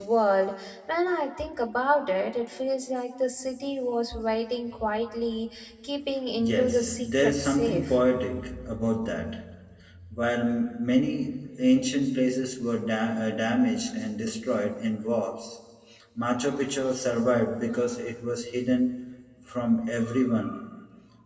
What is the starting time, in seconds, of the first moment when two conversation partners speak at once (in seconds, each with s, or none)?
6.4 s